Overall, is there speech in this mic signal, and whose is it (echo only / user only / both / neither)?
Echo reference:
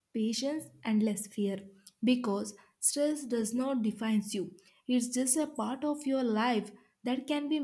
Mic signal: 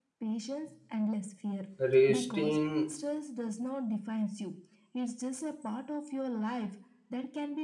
both